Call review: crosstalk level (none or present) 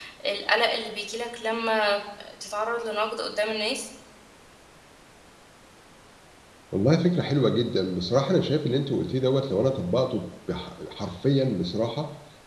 none